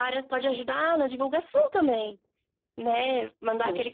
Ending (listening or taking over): listening